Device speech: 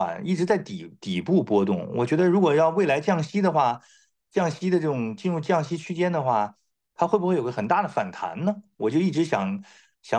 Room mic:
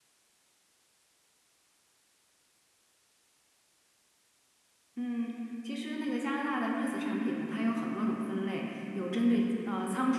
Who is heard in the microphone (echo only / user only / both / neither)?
user only